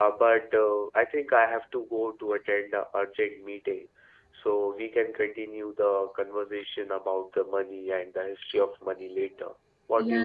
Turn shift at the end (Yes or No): Yes